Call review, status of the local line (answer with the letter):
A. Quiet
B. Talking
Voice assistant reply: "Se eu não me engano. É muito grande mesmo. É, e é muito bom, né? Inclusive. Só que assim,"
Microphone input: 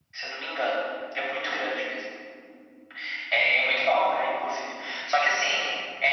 A